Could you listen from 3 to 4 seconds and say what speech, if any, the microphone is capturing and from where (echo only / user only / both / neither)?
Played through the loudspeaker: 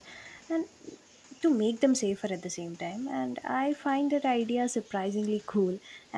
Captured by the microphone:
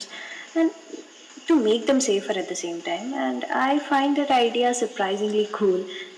echo only